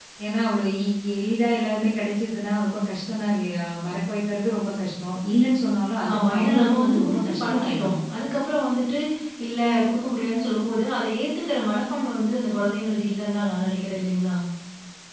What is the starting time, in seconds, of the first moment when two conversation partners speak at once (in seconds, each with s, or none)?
6.0 s